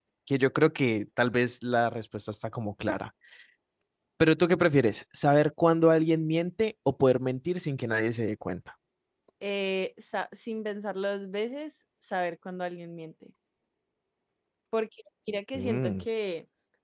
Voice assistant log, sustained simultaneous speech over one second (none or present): none